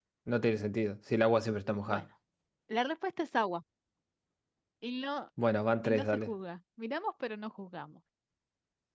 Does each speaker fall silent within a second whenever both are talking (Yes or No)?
Yes